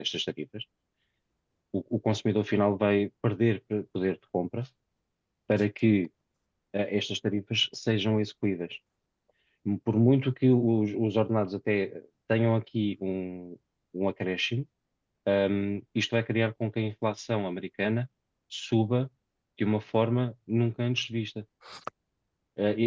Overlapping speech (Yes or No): No